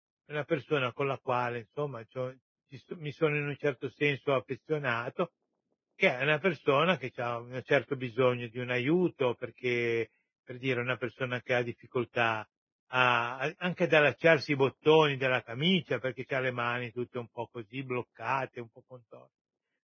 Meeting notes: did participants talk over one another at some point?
No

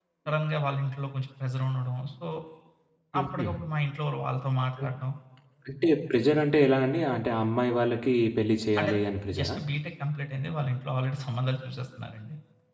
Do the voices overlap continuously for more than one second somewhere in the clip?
No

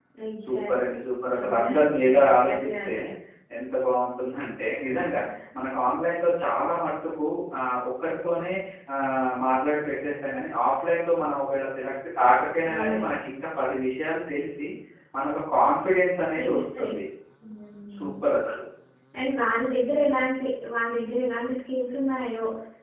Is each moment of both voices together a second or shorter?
No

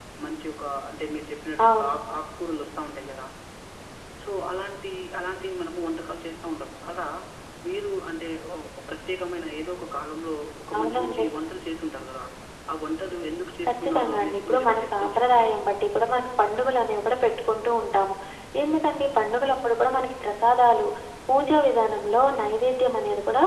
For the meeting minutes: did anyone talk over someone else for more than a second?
Yes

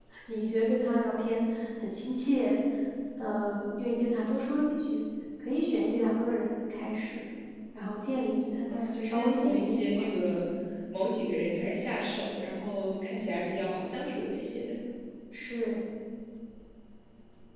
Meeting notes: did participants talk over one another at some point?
Yes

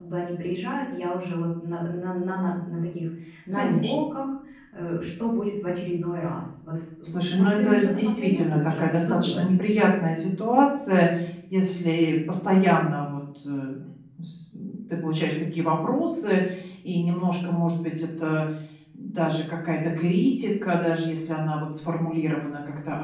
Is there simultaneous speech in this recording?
Yes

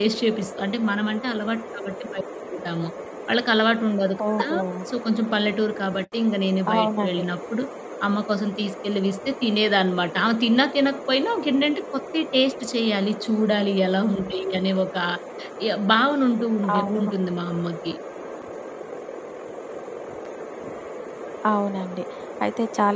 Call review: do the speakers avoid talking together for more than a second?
Yes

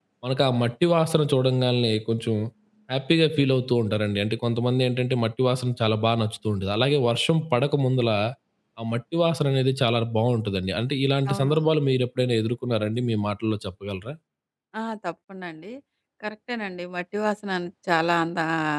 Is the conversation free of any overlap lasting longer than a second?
Yes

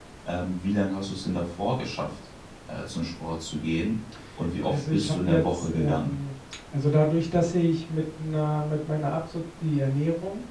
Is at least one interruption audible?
Yes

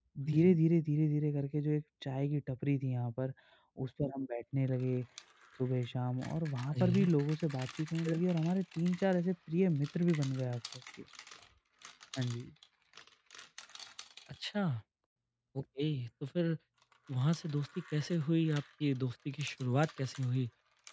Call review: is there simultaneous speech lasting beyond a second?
No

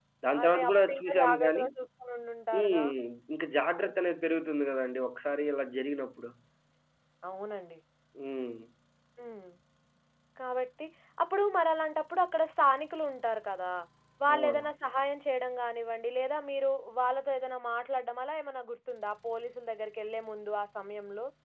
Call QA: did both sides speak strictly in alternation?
No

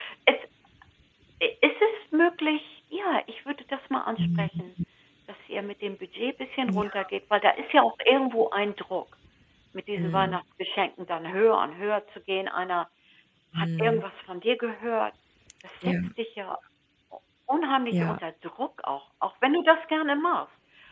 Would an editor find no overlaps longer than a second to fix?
Yes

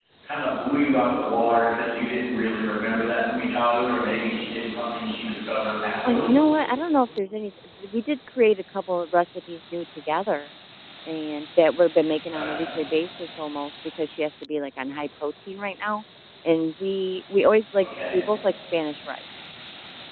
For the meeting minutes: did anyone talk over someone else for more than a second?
No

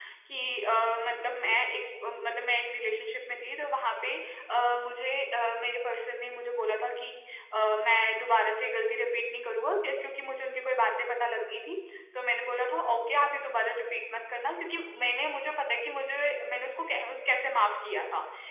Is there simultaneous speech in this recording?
No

